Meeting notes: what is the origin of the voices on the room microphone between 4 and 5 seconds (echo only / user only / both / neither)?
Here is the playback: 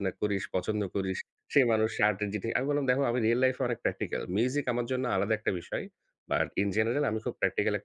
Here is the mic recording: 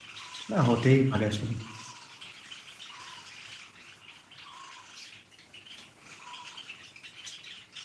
neither